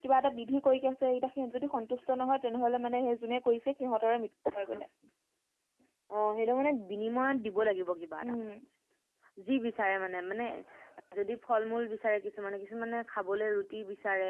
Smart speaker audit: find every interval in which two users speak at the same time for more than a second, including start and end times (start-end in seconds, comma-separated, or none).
none